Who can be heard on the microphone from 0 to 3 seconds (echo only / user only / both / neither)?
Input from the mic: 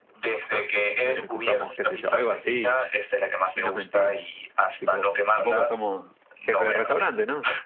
both